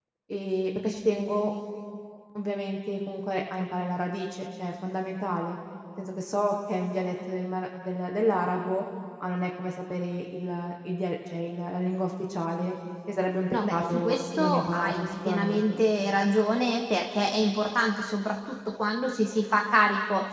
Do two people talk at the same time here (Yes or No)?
Yes